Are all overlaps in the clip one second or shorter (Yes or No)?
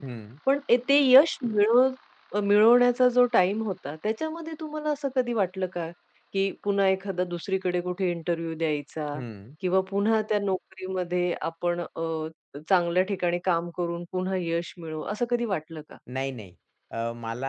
Yes